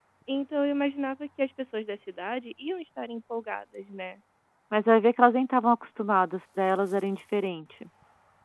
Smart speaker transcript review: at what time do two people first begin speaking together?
none

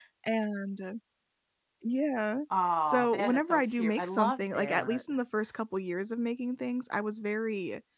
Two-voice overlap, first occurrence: 3 s

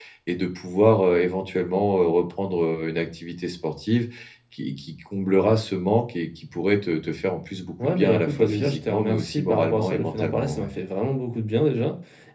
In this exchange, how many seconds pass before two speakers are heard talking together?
8 s

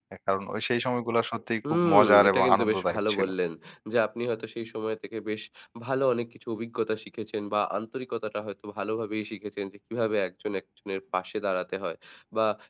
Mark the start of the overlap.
2 s

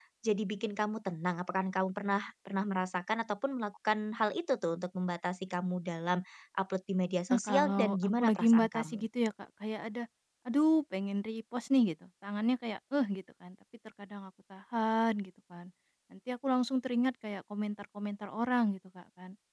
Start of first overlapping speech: 7 s

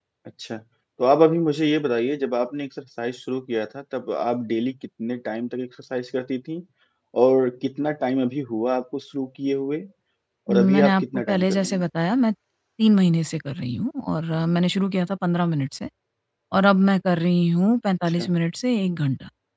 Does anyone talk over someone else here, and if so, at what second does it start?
10 s

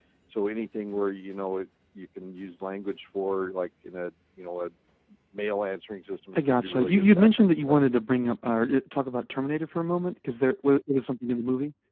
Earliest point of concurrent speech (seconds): 6 s

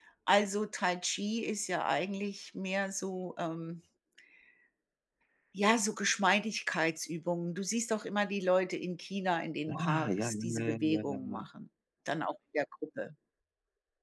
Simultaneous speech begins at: 10 s

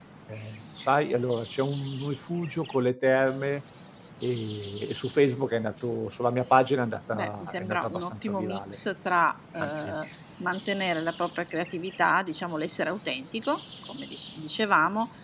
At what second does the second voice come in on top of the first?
7 s

